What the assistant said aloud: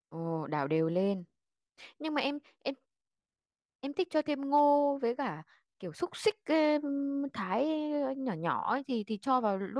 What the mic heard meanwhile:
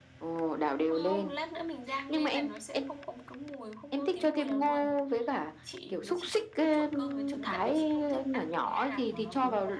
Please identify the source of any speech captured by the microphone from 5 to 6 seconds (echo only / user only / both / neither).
both